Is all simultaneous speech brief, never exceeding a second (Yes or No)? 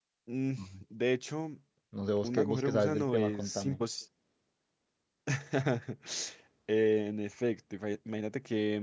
No